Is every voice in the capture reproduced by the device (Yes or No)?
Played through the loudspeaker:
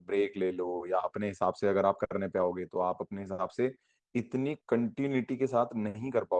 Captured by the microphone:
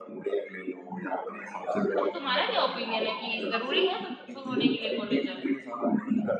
No